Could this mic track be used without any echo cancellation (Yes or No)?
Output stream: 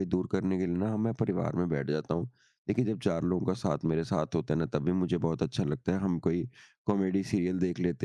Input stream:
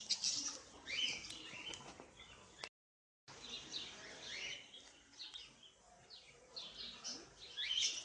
Yes